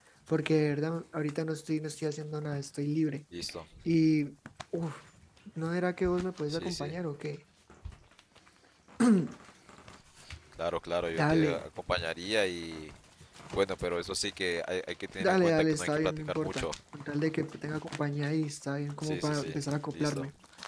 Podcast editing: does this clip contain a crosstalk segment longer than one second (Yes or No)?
Yes